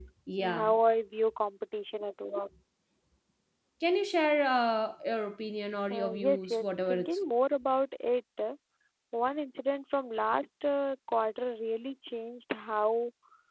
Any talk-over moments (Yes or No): Yes